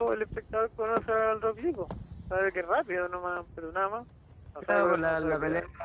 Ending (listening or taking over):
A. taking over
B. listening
A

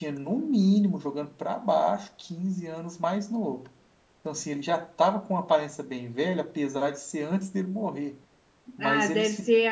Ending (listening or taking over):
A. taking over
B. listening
A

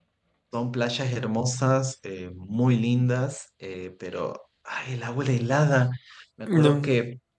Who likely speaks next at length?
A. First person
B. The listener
A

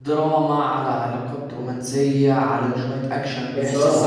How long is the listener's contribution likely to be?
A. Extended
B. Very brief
A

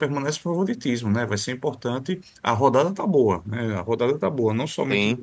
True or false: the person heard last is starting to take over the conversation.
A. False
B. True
A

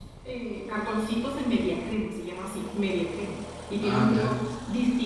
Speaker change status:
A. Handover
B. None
B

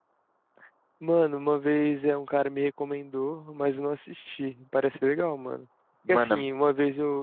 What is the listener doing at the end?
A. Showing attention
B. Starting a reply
A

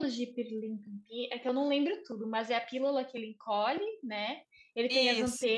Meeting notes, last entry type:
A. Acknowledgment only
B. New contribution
A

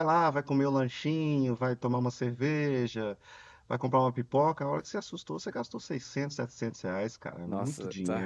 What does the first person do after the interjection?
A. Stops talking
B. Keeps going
A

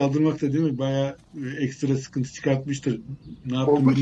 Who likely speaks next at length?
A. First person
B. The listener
B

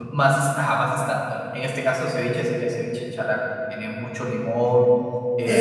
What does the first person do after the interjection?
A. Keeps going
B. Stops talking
B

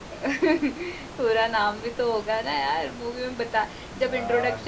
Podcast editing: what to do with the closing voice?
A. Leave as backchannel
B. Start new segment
A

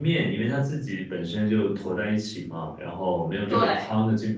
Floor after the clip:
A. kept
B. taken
A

